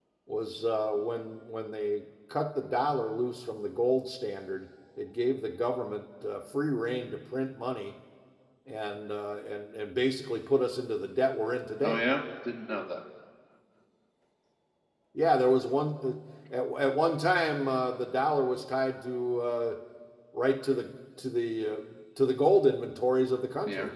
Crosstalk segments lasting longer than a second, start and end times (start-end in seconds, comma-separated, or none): none